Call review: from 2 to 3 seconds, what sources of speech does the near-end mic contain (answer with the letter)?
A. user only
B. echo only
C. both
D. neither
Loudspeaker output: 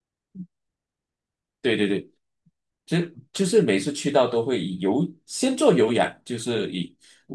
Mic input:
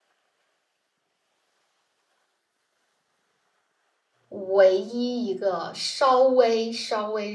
D